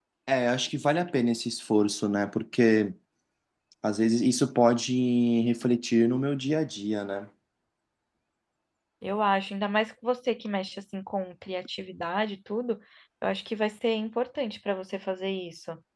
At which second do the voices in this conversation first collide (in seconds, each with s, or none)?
none